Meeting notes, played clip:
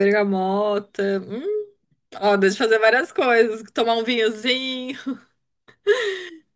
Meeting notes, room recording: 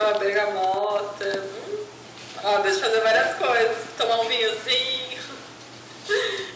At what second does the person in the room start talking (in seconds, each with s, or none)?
none